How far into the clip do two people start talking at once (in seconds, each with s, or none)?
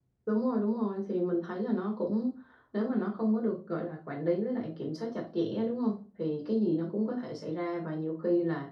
none